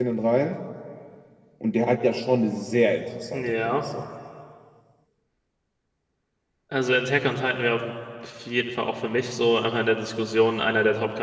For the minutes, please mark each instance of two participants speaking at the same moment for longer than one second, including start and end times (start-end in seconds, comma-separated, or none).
none